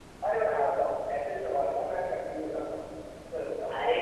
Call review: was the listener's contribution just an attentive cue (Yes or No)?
No